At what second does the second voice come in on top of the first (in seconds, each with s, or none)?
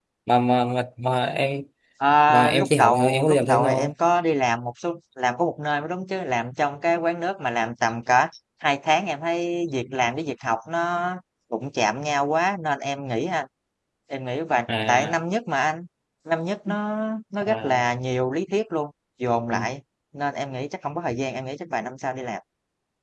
2.3 s